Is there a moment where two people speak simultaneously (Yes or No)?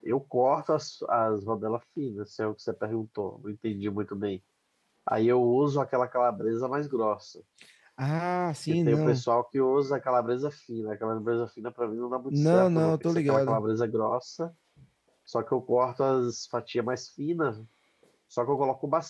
Yes